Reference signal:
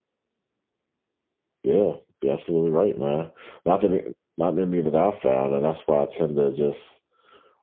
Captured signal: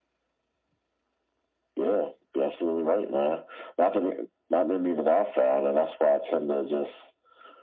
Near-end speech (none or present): none